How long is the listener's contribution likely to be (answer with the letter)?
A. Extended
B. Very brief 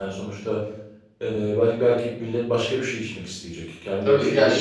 A